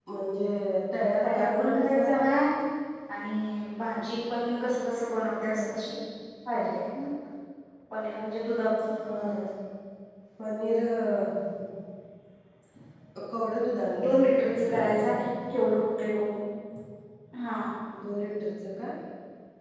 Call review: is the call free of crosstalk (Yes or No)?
No